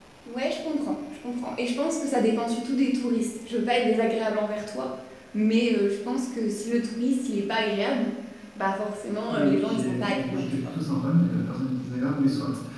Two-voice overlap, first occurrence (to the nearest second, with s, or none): 9 s